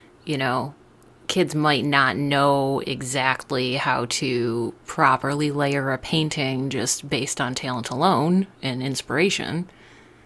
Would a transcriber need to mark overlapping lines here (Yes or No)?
No